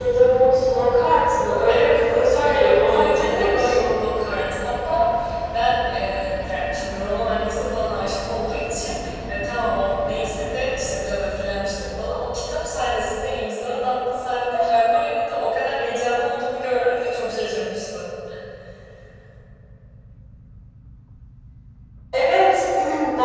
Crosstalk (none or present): present